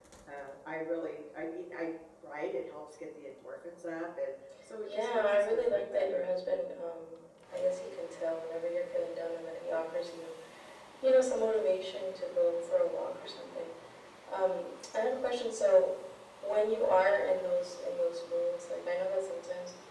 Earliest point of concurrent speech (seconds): 4.8 s

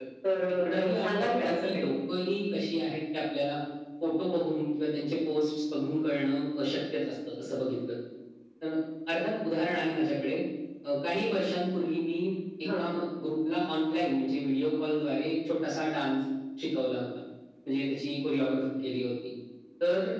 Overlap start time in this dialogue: 0.6 s

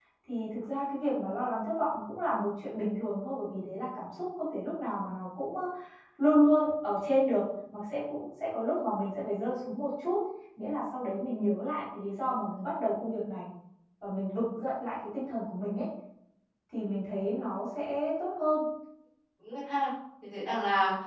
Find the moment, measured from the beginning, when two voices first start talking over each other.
none

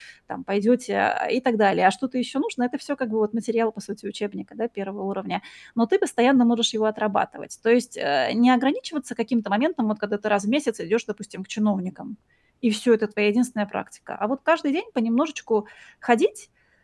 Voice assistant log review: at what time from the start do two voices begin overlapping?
none

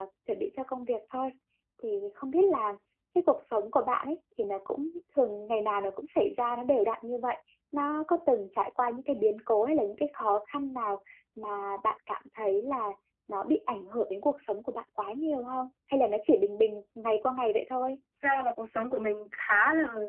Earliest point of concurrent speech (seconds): none

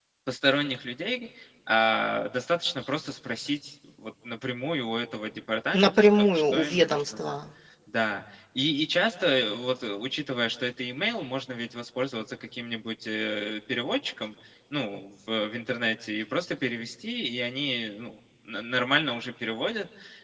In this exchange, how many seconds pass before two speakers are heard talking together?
5.7 s

